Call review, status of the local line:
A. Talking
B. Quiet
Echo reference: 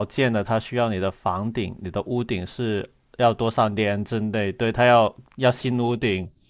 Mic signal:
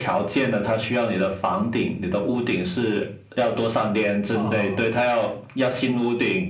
A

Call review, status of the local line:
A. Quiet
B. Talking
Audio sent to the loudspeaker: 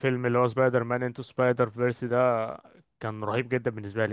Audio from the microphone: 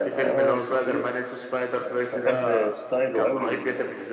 B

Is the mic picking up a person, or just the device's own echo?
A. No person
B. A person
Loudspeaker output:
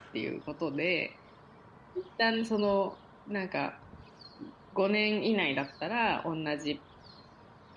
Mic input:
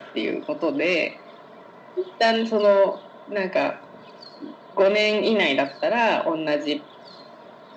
A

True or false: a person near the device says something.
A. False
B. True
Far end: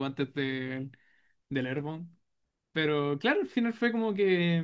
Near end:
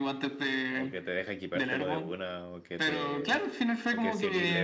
B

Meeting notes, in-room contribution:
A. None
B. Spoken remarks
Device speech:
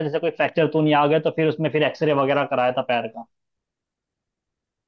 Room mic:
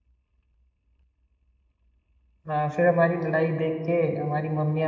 B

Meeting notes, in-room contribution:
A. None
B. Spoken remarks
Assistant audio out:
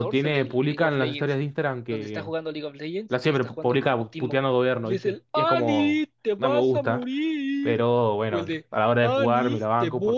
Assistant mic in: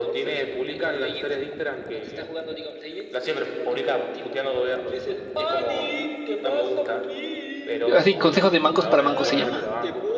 B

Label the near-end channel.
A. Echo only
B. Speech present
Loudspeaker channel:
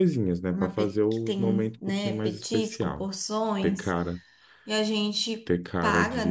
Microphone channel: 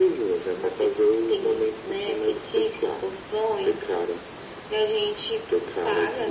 A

